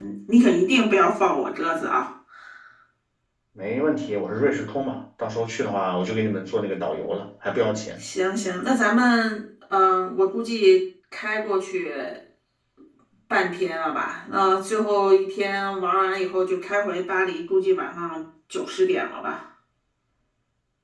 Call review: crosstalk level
none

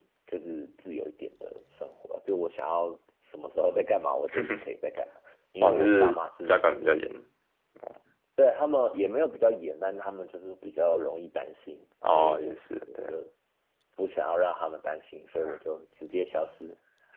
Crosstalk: present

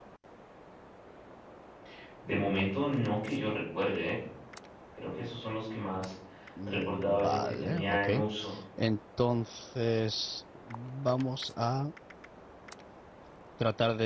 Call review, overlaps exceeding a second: present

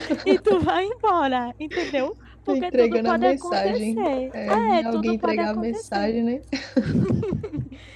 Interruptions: present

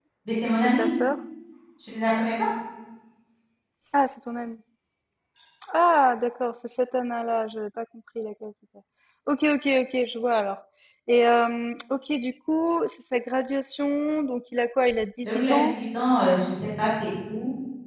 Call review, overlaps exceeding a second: none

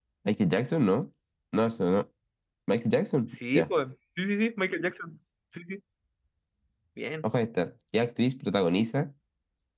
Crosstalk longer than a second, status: none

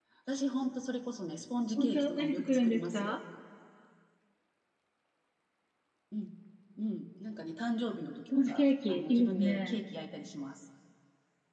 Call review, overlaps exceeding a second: present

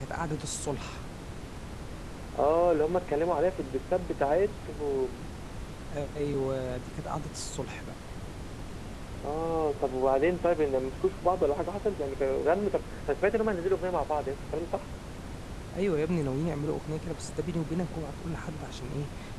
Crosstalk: none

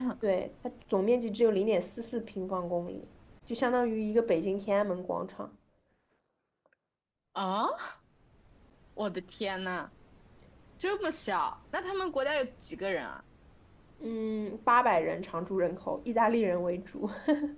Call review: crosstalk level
none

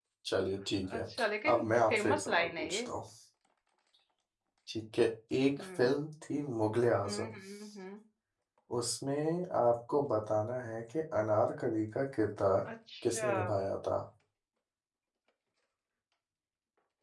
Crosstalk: present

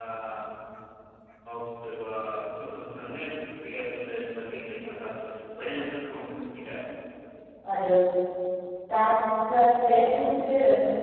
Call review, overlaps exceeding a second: none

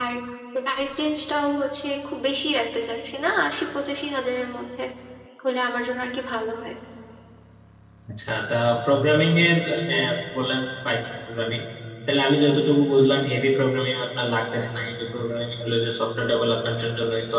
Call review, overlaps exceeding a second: none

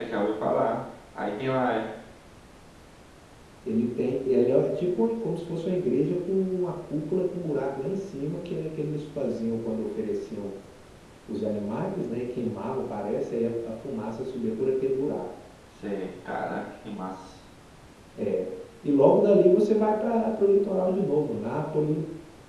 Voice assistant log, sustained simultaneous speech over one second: none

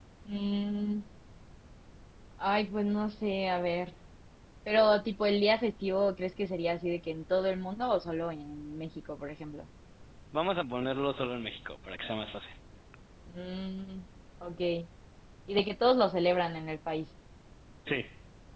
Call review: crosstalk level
none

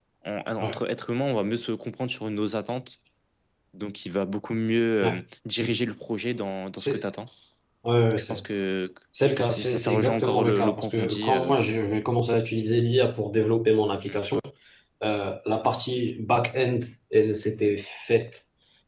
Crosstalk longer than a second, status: present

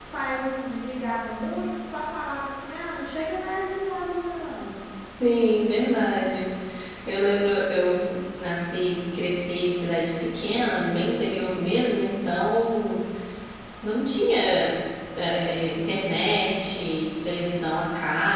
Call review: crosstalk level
none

